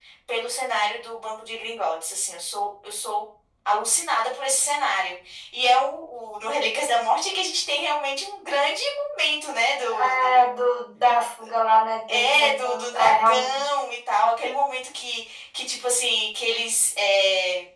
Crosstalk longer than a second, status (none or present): present